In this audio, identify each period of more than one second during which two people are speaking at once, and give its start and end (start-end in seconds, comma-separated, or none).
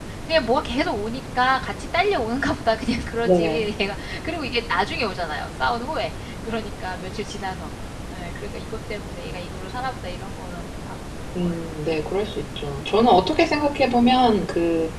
none